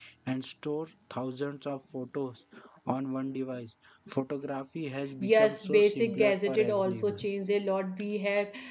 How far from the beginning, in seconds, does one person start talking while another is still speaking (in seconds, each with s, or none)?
5.2 s